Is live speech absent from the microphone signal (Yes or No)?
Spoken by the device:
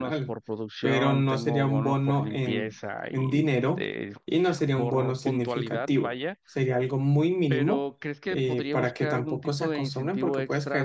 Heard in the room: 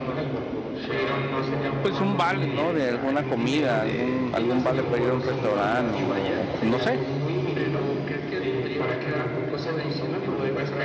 No